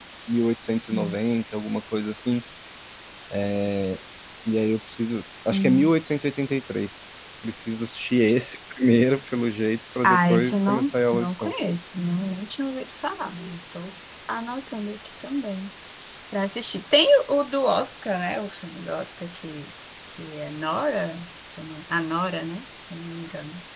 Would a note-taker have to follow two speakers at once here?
Yes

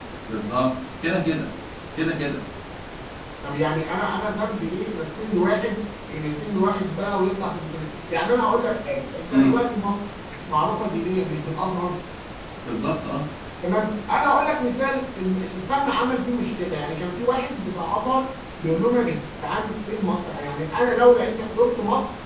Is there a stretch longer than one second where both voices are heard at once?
No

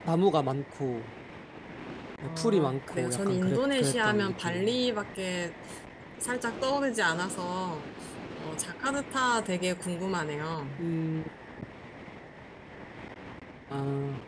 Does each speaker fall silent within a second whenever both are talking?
No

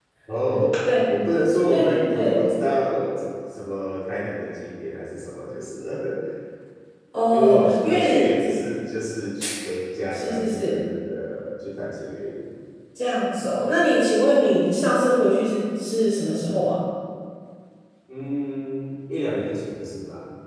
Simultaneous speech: Yes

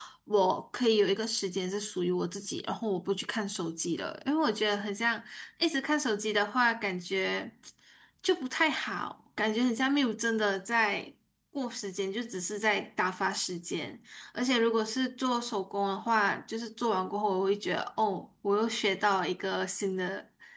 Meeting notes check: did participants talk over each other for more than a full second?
No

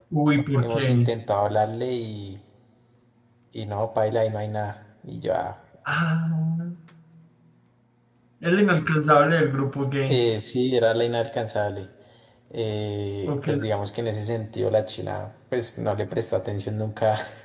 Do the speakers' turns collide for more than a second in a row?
No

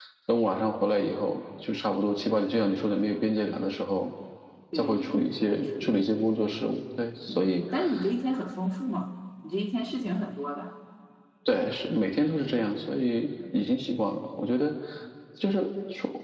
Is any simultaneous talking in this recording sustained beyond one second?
Yes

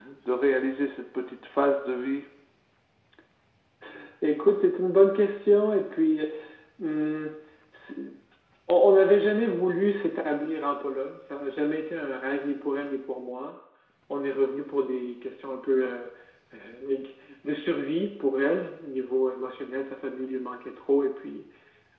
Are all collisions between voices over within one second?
Yes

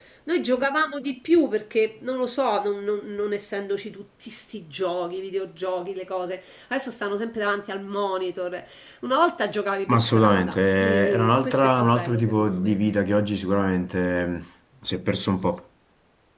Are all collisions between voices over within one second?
No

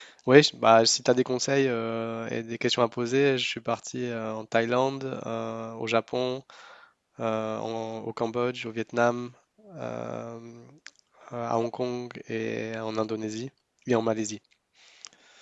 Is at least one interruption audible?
No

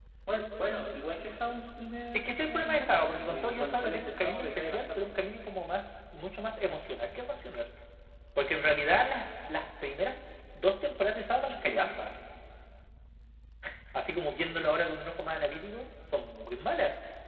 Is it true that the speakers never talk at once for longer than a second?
No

